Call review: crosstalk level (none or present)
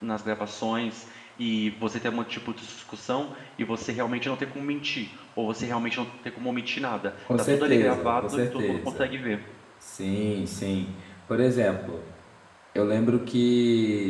present